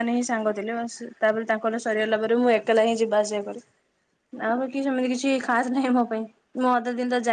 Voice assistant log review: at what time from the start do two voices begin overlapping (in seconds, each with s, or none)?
none